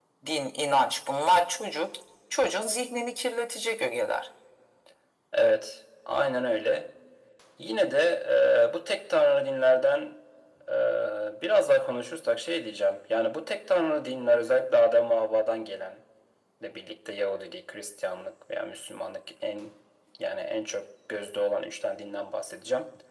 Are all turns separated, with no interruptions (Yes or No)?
Yes